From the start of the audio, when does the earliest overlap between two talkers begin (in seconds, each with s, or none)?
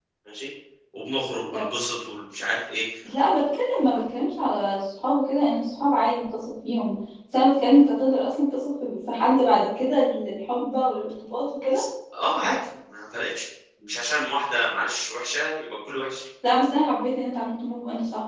none